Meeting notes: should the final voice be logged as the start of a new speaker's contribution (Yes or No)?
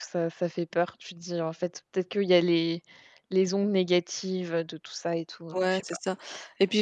Yes